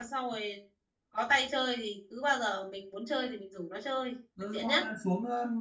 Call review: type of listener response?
taking over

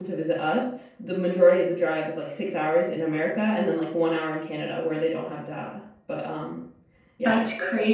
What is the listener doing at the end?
taking over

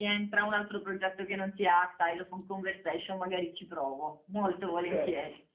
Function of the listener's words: taking over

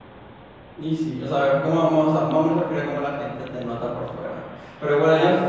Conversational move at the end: listening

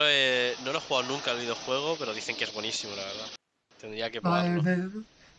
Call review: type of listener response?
taking over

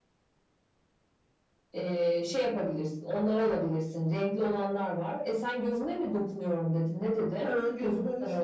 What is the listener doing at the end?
taking over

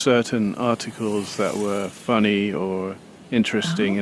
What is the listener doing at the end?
listening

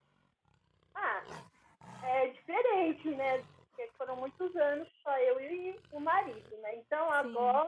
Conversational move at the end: listening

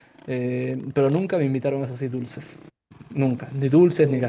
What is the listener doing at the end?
listening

